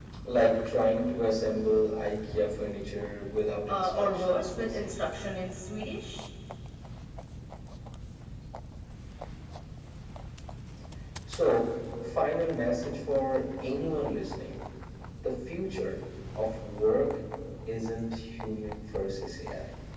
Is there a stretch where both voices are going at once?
Yes, from 3.7 s

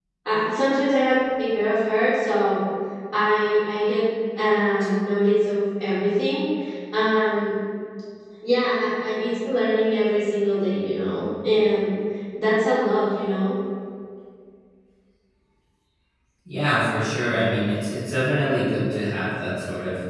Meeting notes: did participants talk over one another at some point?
No

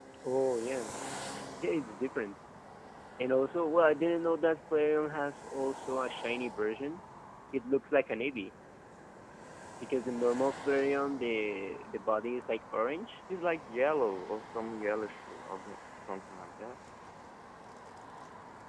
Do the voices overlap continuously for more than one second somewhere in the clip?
No

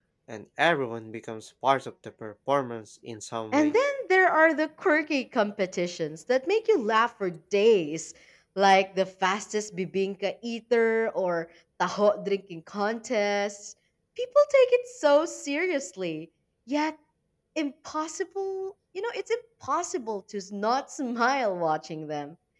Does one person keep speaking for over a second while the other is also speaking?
No

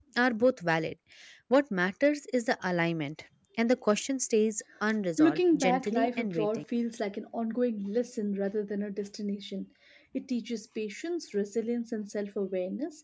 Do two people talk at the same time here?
Yes, from 5.2 s

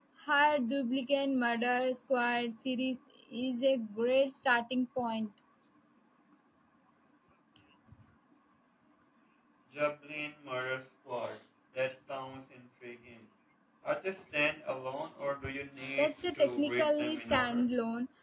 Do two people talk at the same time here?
Yes, from 16.0 s

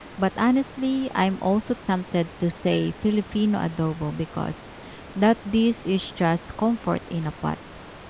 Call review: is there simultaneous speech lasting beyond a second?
No

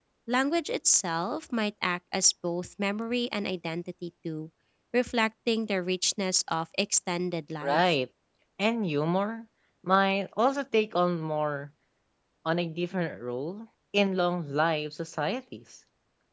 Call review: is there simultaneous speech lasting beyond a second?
No

